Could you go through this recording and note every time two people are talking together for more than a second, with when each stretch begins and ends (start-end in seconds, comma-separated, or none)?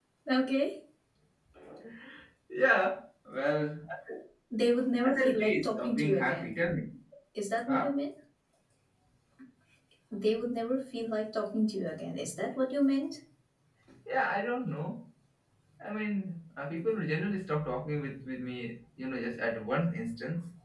5.1-6.5